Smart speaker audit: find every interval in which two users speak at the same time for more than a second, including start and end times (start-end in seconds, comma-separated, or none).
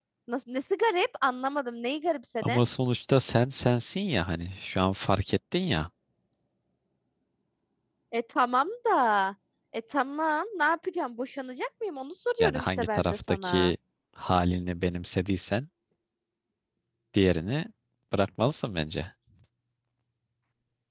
12.4-13.6